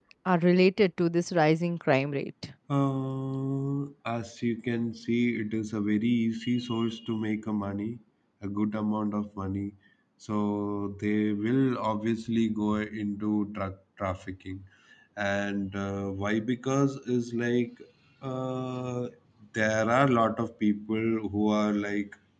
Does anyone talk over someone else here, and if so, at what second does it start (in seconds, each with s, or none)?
none